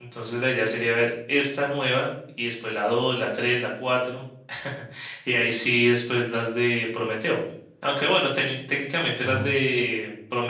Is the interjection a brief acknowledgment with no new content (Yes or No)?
Yes